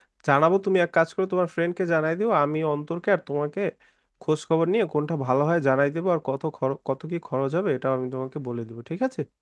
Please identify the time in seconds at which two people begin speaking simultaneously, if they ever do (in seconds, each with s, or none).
none